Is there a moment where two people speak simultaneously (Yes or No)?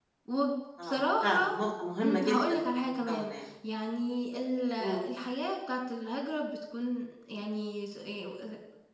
Yes